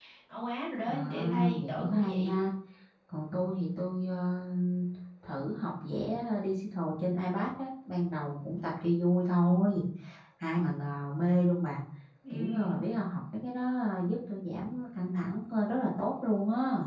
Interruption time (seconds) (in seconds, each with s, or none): 0.8 s